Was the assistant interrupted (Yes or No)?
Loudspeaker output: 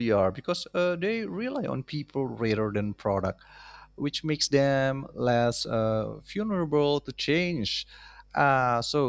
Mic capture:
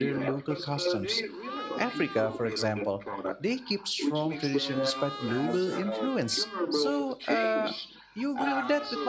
Yes